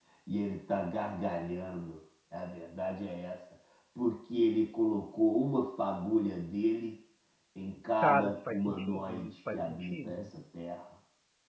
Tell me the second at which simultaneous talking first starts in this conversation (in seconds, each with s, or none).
8.0 s